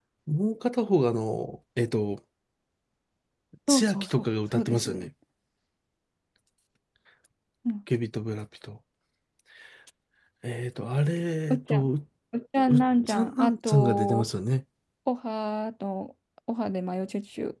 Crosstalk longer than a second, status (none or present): present